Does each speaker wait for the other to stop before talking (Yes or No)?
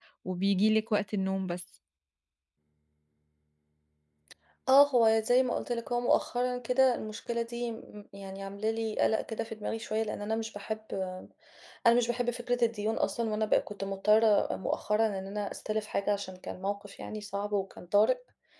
Yes